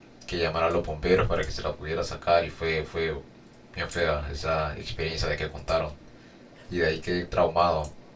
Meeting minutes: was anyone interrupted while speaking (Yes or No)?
No